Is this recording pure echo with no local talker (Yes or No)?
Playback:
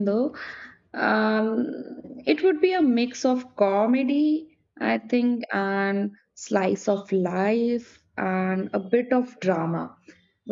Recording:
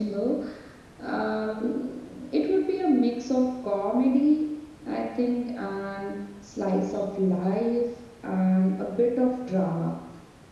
Yes